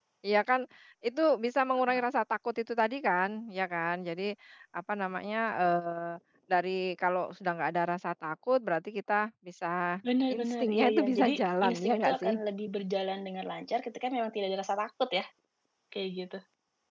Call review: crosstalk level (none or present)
present